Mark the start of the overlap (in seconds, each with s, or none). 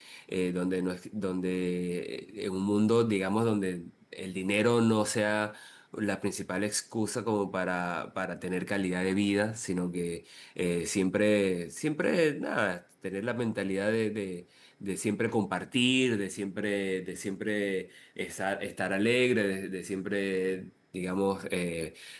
none